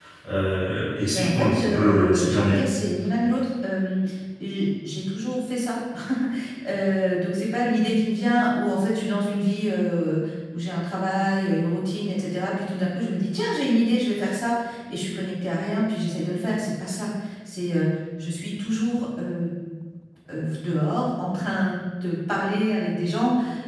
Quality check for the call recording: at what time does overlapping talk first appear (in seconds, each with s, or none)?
1.1 s